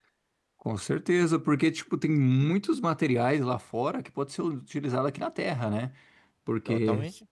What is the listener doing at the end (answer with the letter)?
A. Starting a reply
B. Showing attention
B